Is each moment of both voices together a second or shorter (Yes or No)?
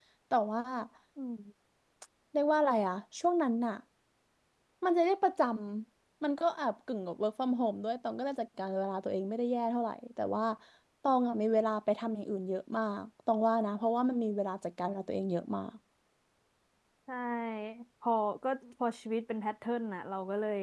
Yes